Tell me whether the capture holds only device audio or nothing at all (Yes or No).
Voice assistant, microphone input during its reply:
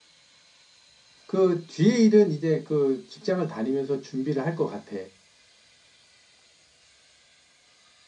No